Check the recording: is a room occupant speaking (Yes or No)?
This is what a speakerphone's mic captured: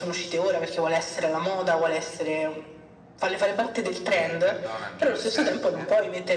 Yes